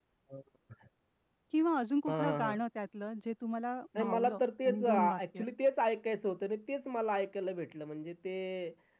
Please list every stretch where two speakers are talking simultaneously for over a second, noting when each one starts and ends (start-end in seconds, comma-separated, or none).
4.0-5.4